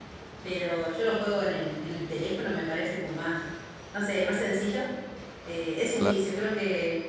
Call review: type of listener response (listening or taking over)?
listening